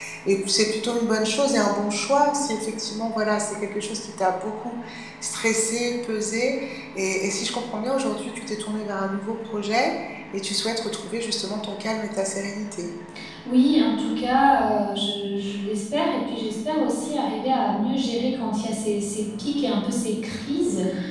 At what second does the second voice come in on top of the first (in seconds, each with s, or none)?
none